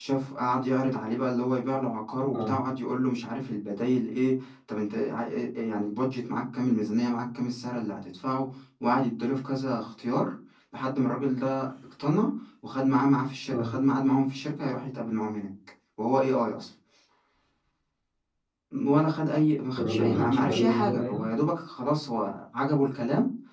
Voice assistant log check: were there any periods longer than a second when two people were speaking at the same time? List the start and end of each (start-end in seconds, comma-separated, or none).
19.8-21.2